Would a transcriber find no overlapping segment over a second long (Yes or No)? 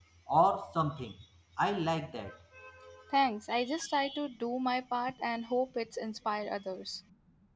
Yes